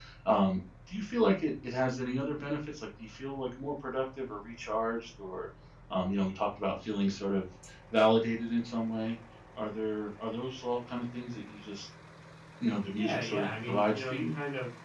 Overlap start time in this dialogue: 13.0 s

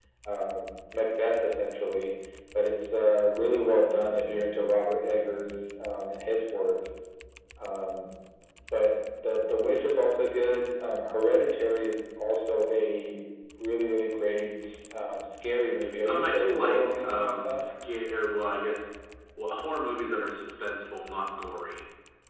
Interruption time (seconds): 16.0 s

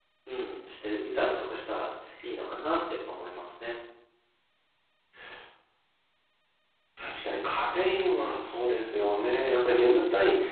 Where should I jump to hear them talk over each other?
none

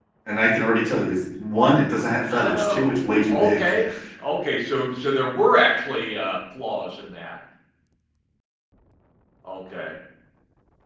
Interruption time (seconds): 2.3 s

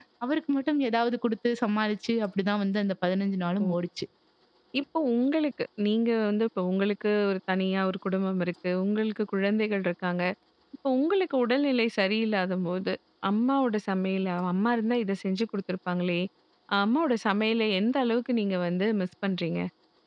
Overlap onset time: none

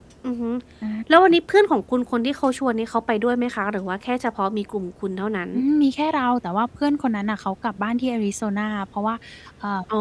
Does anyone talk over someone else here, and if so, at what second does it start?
none

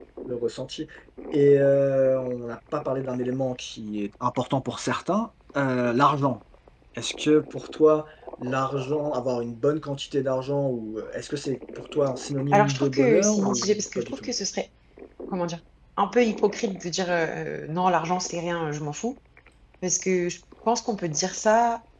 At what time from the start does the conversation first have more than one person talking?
12.5 s

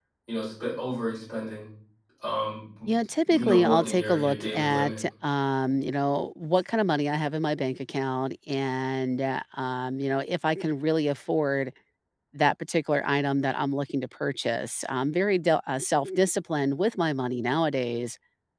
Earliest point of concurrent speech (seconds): 3.3 s

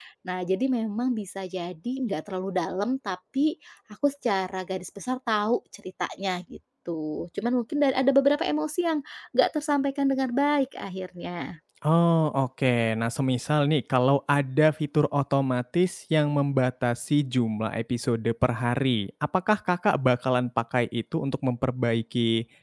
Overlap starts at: none

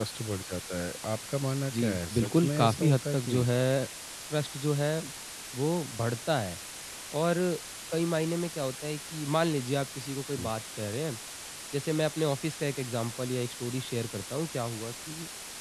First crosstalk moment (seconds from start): 1.7 s

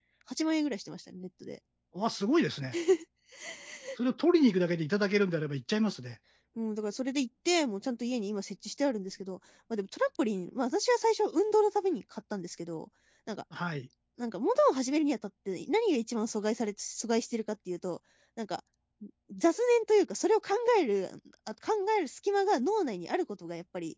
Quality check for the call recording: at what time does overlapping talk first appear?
none

